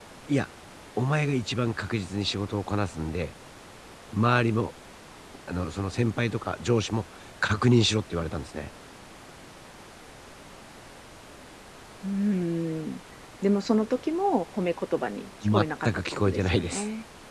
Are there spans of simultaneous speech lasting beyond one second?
Yes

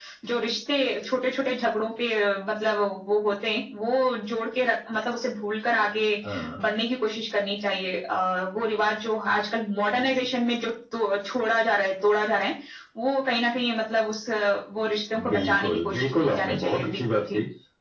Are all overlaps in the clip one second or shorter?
No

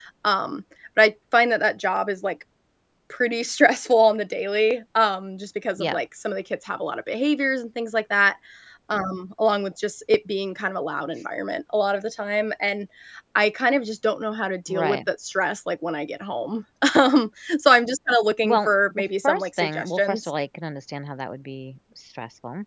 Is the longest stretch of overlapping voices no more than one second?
No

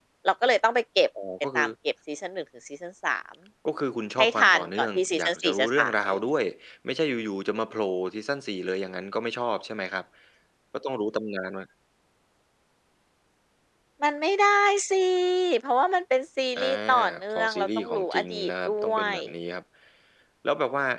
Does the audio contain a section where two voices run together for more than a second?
Yes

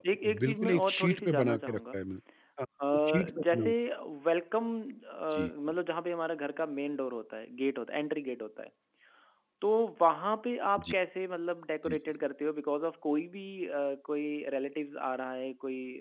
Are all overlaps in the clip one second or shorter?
No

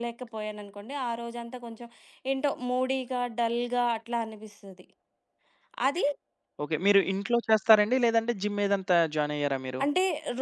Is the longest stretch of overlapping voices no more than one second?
Yes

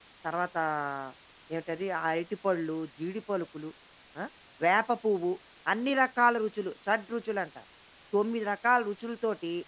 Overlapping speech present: No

